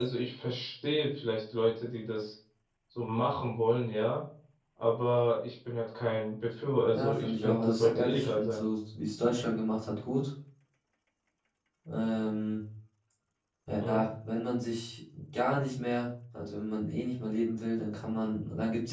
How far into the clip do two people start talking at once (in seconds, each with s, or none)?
6.9 s